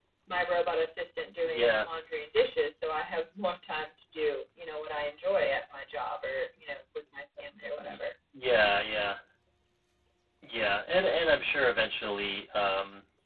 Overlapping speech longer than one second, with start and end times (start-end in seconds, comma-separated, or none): none